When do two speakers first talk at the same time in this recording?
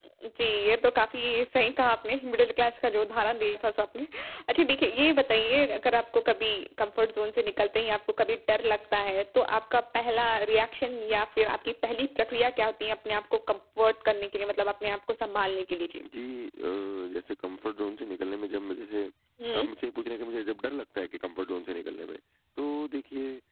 none

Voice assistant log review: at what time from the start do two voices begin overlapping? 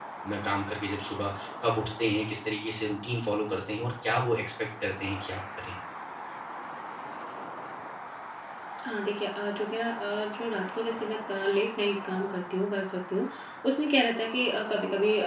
none

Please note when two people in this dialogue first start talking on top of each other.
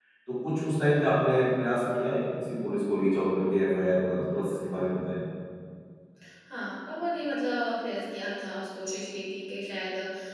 none

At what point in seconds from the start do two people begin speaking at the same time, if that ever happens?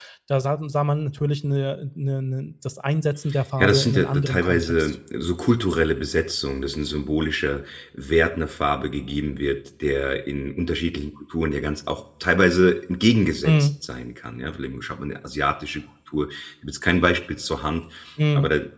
4 s

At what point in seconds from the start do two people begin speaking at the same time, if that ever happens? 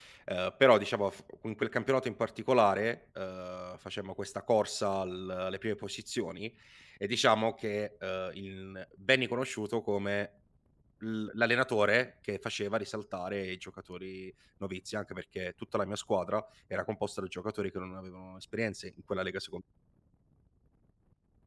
none

